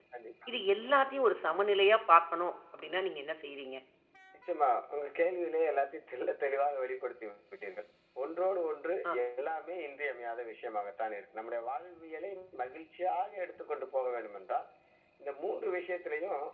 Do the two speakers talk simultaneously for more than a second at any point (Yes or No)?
No